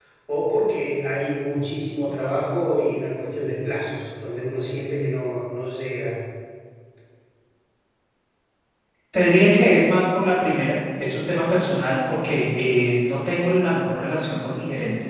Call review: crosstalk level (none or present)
none